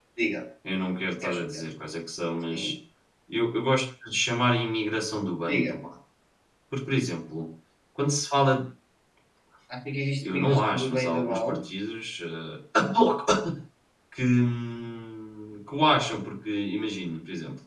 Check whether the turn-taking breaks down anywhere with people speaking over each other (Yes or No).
Yes